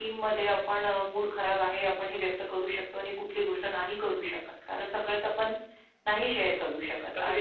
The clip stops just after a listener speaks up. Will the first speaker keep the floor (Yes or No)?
No